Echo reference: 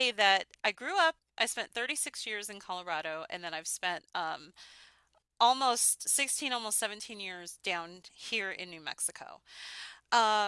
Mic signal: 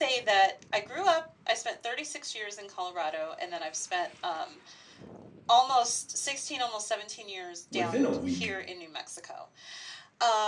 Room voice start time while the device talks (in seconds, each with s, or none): 7.7 s